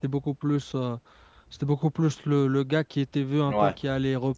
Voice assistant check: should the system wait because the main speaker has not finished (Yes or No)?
Yes